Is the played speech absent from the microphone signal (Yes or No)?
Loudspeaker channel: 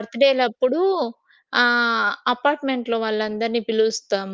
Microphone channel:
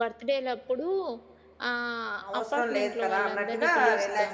No